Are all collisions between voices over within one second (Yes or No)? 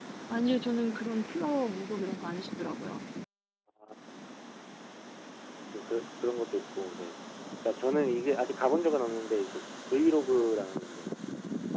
Yes